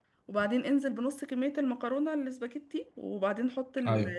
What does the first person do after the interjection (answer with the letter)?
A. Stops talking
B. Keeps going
B